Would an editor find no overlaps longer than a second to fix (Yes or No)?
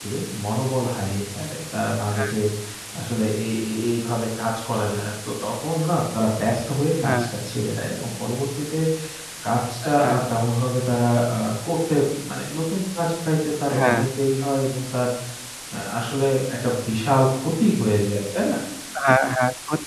Yes